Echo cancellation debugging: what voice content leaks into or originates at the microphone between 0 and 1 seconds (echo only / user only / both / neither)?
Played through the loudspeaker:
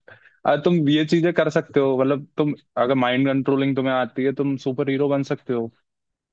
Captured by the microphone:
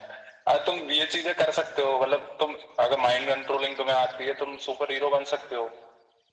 echo only